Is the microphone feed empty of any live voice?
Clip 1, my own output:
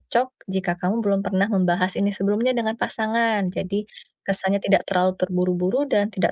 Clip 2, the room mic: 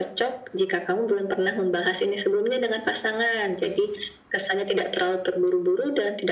Yes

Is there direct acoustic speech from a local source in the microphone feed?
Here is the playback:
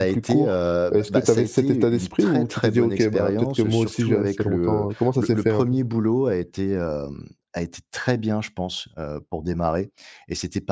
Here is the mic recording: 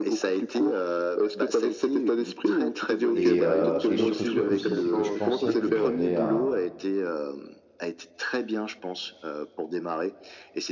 Yes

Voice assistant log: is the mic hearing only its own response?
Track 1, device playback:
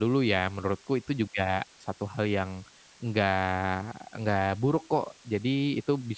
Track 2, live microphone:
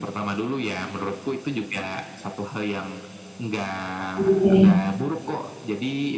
No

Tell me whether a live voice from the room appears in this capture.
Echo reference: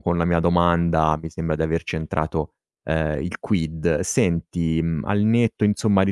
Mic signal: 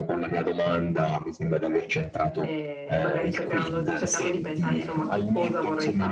Yes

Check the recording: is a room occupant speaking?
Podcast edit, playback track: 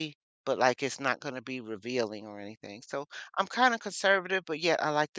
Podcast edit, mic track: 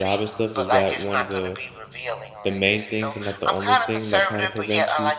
Yes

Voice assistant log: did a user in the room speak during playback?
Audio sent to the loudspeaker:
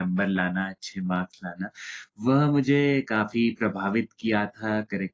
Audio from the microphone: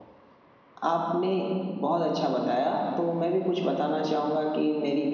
Yes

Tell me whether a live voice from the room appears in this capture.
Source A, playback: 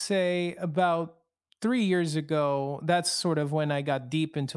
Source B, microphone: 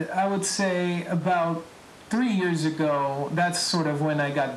No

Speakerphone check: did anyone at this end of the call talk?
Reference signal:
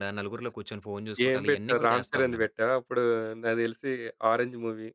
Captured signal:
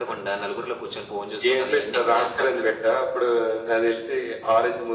No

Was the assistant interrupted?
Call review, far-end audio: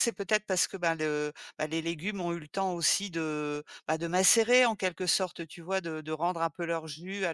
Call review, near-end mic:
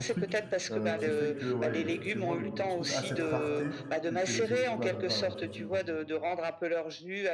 Yes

